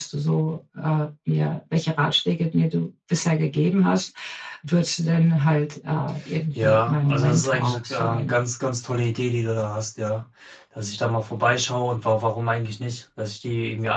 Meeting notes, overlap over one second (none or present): present